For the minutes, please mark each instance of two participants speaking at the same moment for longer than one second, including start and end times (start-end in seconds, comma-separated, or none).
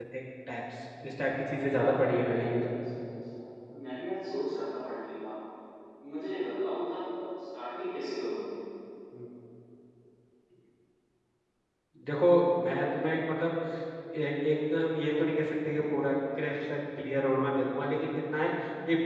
1.5-2.7